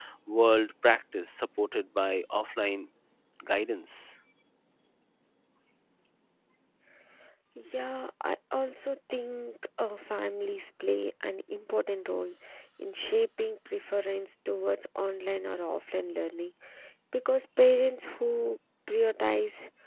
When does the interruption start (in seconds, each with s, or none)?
none